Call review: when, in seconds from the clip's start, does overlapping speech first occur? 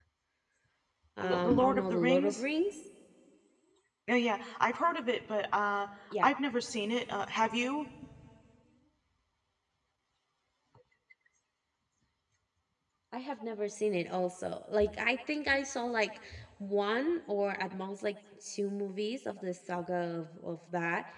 1.2 s

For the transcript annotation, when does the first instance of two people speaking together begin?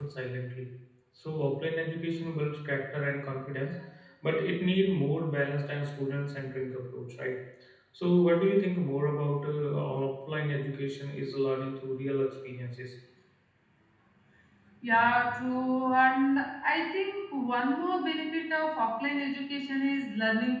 none

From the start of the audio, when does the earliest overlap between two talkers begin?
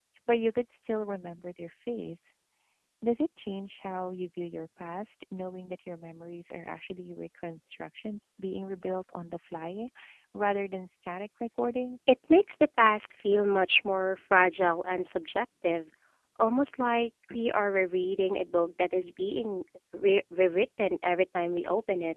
none

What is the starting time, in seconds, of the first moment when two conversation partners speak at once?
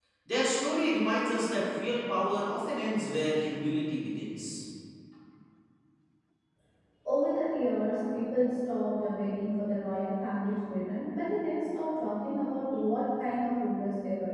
none

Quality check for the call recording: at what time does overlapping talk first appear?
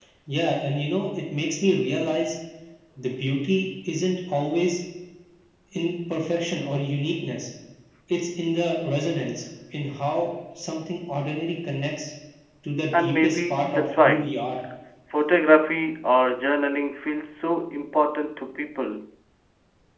13.0 s

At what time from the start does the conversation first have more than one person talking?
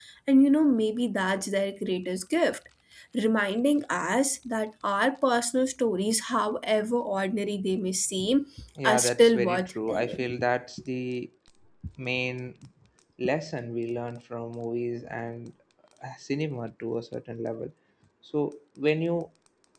8.8 s

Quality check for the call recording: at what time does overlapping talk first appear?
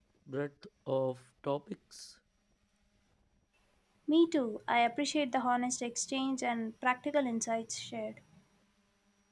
none

